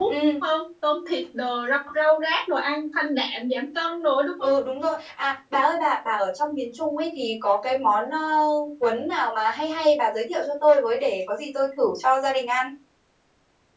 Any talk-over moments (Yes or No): No